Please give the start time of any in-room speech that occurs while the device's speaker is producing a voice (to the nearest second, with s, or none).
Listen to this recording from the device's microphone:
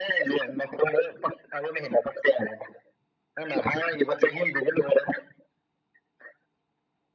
none